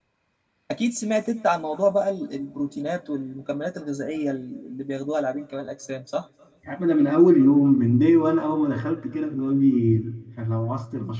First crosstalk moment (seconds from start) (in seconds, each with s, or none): none